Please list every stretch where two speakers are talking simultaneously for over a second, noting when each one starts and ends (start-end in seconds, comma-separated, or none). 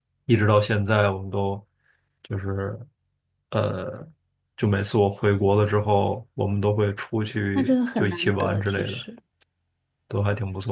7.5-9.0